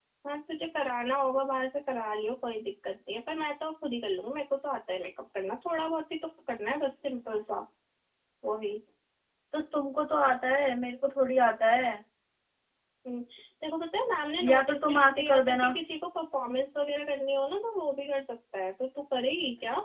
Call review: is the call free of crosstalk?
No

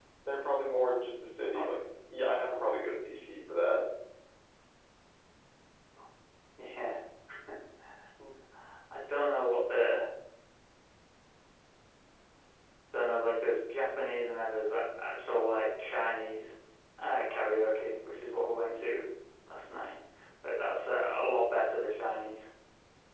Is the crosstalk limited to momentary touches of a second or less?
Yes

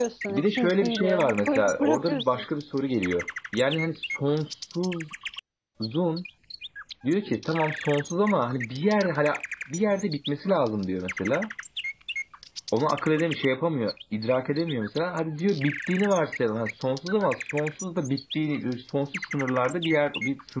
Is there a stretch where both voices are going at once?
Yes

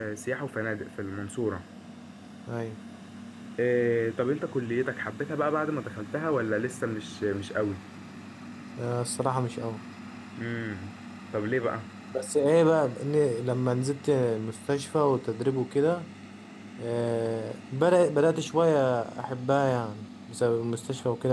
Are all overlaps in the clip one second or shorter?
Yes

